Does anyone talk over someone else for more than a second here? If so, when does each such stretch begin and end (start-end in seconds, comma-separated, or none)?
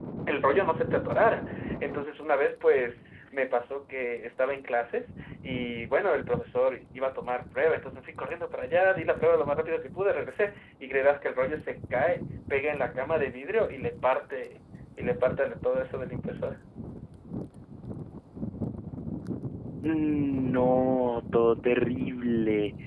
none